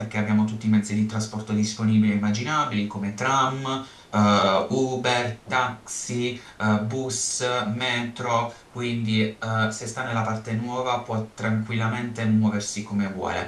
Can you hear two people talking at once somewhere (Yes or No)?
No